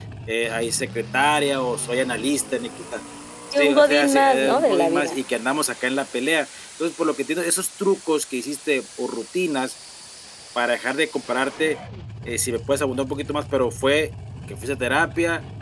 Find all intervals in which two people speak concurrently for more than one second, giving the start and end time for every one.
3.5-5.2

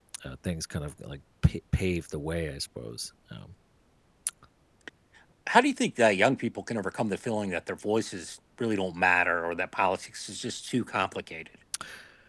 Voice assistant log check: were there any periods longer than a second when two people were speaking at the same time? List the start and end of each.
none

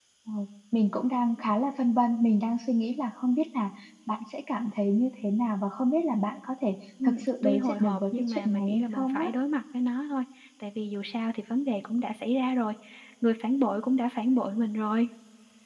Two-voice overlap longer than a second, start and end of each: 7.0-9.3

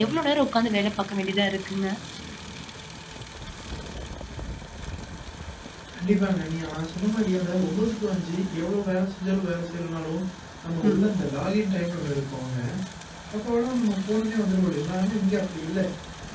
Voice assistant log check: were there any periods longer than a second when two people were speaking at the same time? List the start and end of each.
none

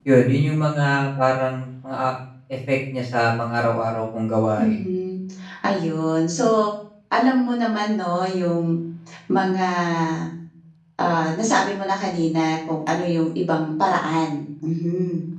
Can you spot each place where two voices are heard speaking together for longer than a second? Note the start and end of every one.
none

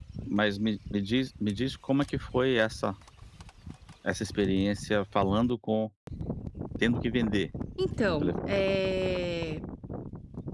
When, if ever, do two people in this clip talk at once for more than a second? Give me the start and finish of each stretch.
none

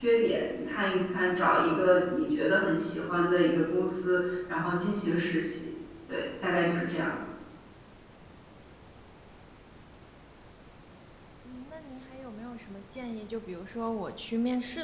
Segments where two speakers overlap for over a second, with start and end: none

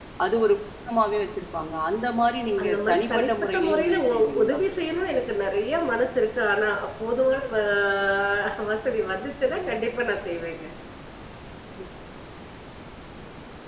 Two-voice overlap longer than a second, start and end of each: 2.6-4.6

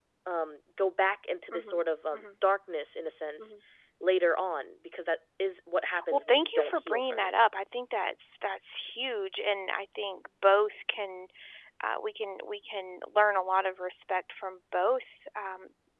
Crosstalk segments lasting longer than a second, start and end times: 6.1-7.3

